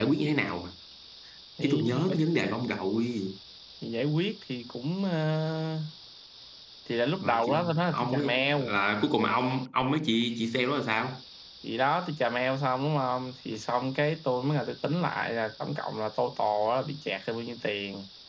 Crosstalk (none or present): present